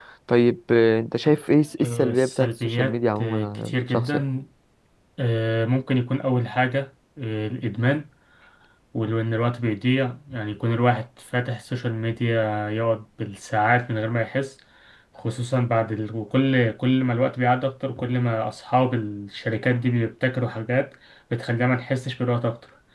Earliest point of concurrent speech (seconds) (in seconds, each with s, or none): 1.8 s